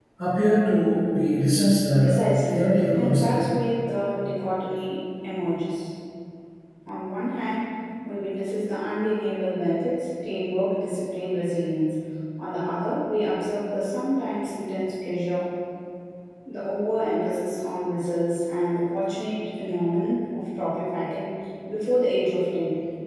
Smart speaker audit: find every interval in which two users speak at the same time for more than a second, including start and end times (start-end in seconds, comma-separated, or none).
2.0-3.4